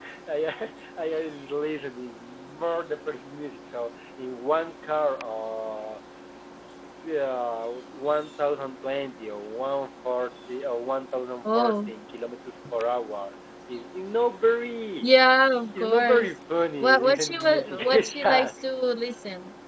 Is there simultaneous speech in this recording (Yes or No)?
Yes